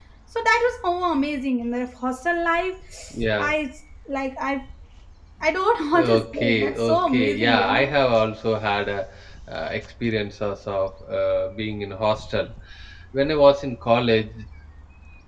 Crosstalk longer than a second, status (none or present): present